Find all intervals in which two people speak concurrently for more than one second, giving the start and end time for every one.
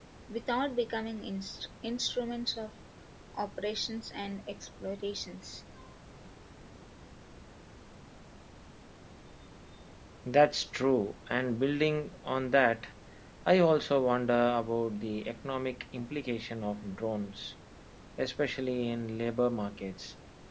none

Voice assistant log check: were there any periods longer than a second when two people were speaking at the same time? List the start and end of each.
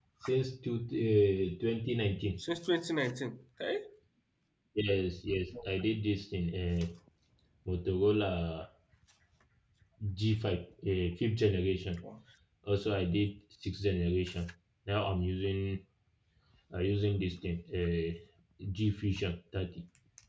none

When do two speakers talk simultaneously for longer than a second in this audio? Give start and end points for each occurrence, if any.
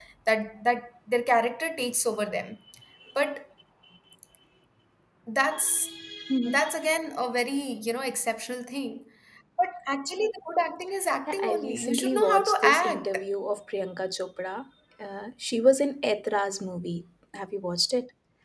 11.3-13.2

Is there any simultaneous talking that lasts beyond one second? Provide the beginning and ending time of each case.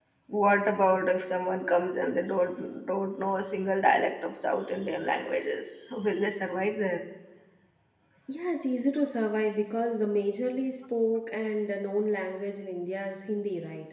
none

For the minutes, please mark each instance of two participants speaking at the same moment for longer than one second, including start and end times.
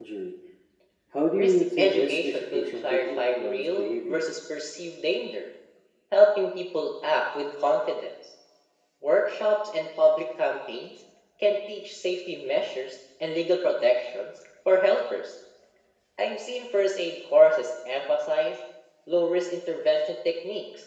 1.3-4.3

